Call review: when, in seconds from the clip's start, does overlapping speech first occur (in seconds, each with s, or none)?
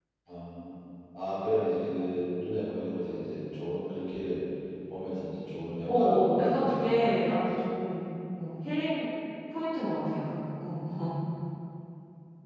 5.9 s